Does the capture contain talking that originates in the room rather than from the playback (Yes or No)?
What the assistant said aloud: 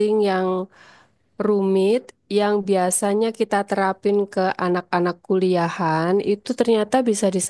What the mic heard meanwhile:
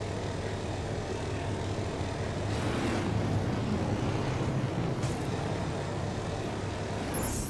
No